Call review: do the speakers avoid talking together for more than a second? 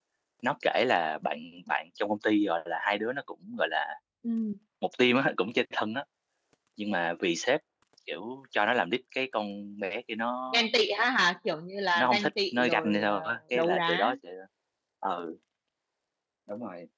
No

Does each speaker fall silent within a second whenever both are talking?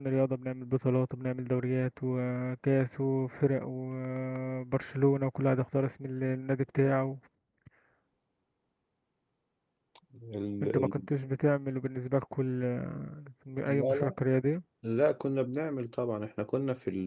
Yes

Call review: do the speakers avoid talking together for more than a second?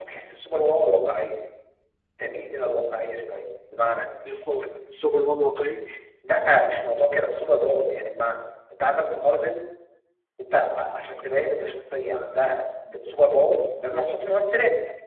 Yes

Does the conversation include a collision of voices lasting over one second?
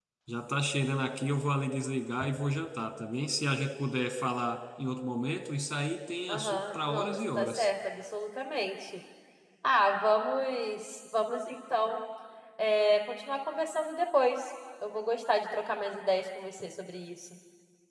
Yes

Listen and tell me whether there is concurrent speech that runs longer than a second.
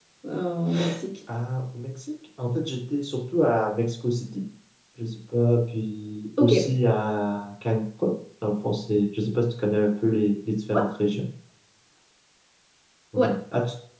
No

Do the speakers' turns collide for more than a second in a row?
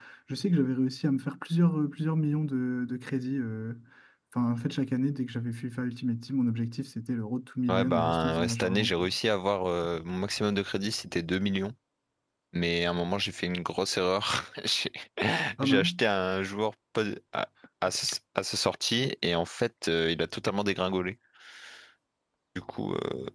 Yes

